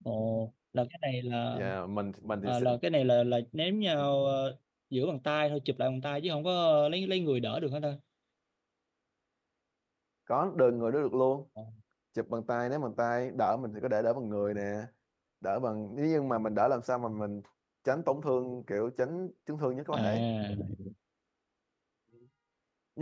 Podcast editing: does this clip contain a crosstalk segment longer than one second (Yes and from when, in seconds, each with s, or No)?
No